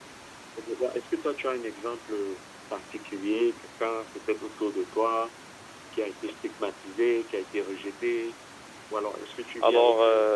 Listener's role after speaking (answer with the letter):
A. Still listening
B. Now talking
A